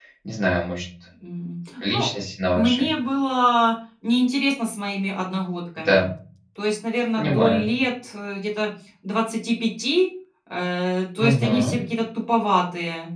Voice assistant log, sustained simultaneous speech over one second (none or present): none